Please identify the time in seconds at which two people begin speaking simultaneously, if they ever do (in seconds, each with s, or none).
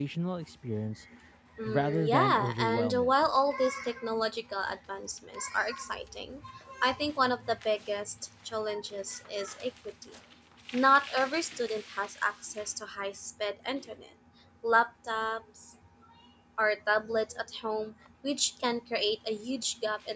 1.7 s